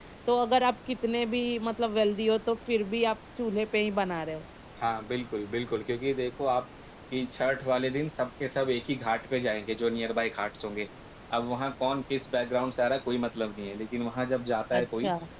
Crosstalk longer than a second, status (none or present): none